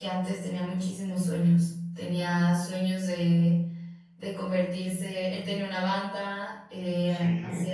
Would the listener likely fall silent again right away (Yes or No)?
Yes